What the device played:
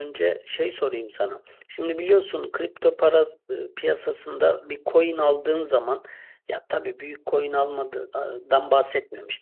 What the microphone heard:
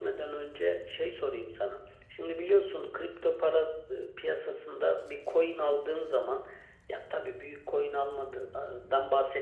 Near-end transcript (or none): none